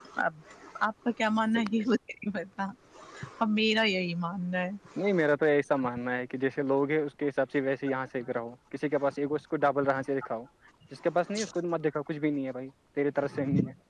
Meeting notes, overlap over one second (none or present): none